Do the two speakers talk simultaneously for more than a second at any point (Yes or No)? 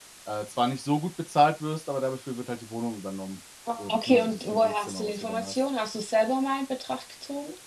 Yes